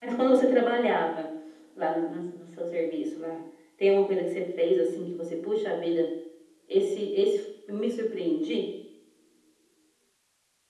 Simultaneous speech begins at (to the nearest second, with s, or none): none